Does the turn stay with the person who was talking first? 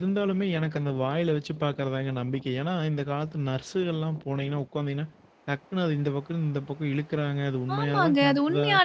No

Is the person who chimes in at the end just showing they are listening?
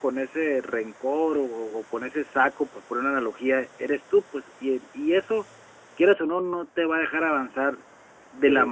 Yes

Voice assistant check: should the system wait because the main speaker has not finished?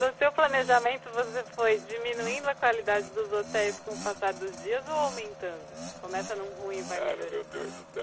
No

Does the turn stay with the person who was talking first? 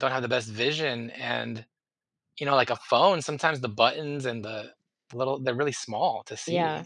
No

